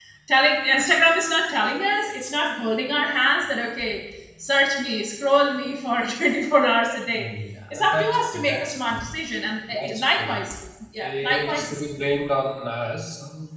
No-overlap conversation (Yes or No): No